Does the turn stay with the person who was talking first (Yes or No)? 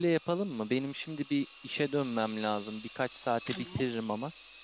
Yes